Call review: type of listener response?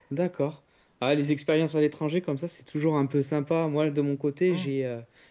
listening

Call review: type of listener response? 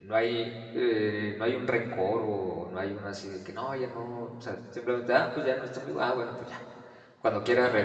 listening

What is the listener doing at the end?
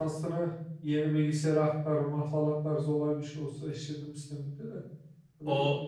taking over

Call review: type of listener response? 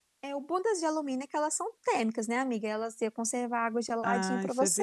taking over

